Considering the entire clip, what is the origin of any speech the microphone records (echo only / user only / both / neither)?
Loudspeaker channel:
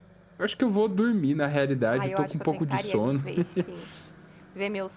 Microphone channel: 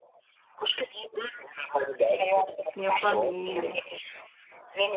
both